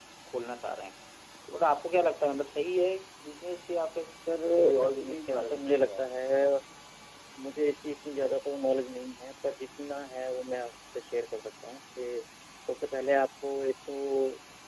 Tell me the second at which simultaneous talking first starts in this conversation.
4.8 s

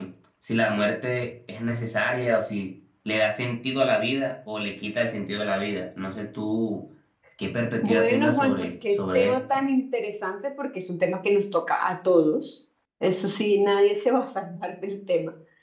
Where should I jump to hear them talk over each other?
7.8 s

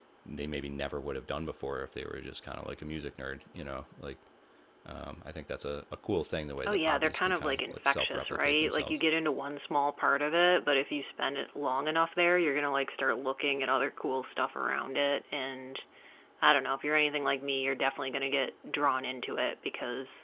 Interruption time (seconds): 6.7 s

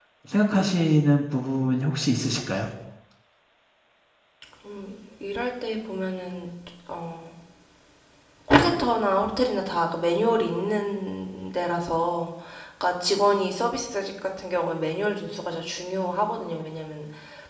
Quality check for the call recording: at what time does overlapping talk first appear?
none

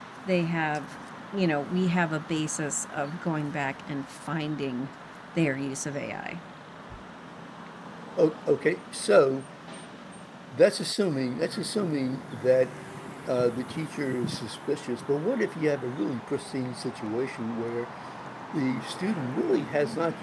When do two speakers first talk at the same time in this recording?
none

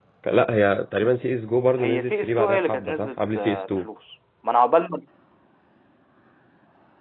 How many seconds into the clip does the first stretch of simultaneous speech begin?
1.8 s

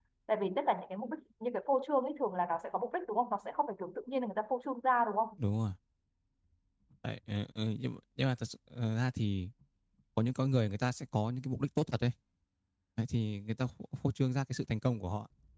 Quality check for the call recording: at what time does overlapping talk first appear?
none

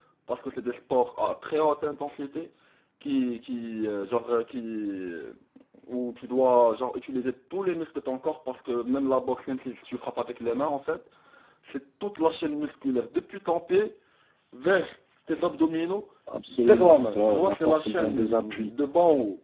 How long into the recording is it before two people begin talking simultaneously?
16.5 s

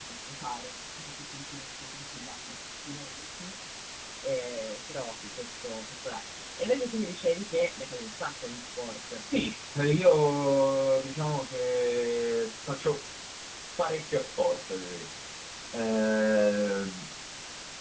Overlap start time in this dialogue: none

